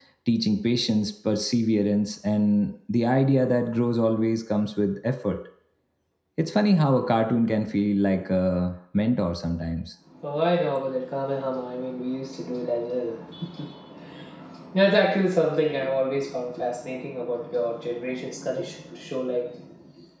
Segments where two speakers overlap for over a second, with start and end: none

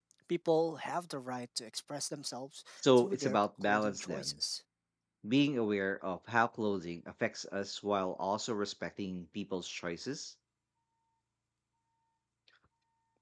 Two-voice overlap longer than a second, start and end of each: 2.8-4.3

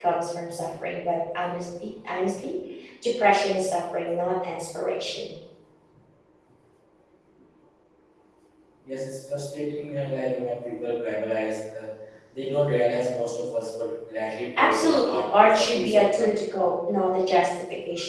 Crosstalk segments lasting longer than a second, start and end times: 14.6-16.4

